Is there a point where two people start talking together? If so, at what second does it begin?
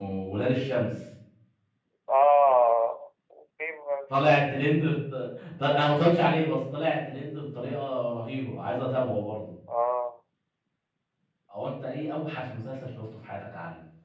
none

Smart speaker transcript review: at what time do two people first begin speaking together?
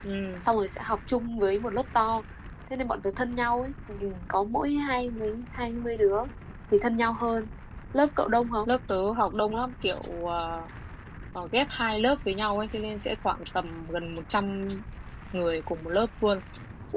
none

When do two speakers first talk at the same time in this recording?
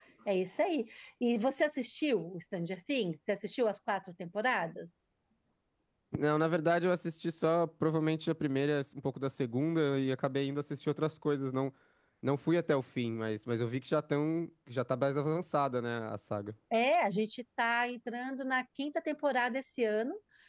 none

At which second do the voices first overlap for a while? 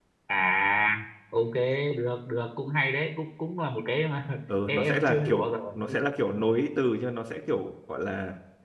5 s

